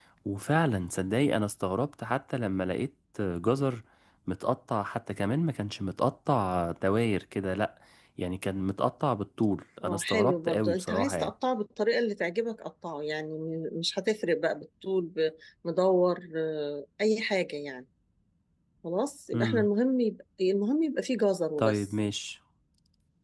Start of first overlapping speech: 10 s

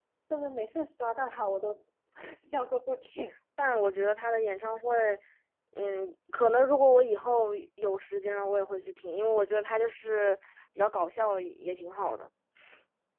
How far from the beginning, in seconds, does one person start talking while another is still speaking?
none

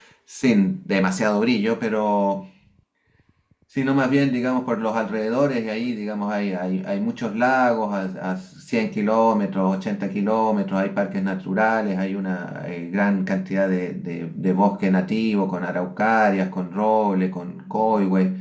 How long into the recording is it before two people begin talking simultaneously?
none

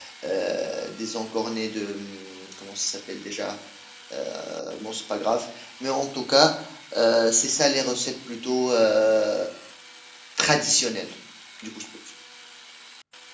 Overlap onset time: none

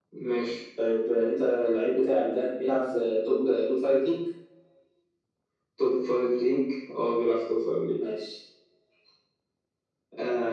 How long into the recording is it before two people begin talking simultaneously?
none

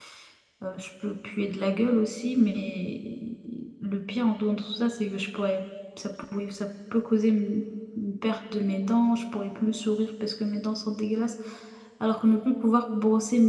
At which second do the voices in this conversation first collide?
none

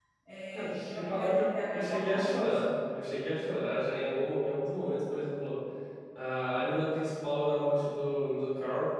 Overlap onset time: 1 s

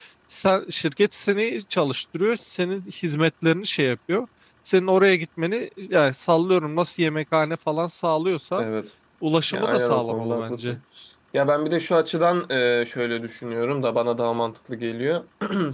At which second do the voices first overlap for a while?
10 s

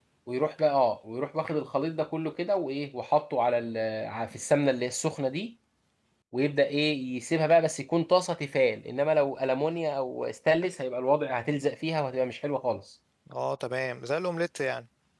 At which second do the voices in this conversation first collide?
none

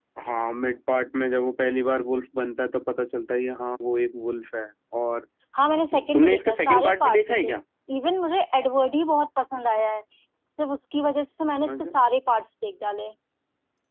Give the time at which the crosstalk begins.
6 s

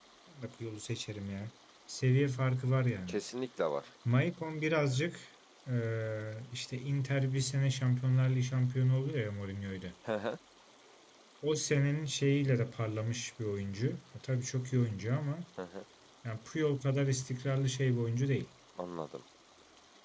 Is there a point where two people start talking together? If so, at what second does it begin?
none

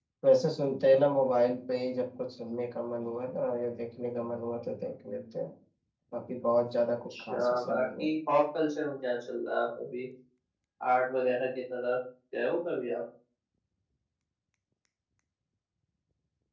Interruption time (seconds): 7 s

